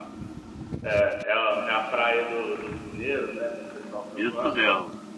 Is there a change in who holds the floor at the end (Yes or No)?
Yes